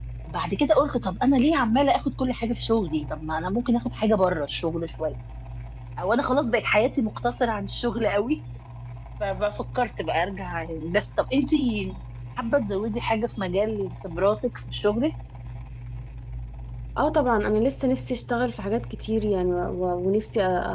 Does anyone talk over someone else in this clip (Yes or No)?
No